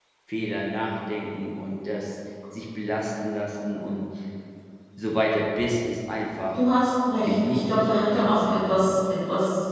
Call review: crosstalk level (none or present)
present